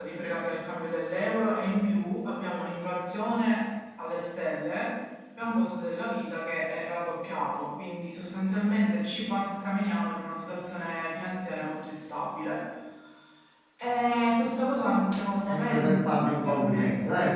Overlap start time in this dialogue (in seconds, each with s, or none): 15.4 s